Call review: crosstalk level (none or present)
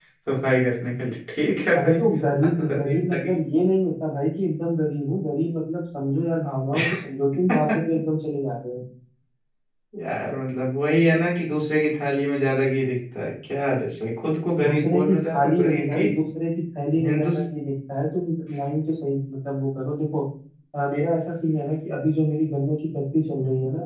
present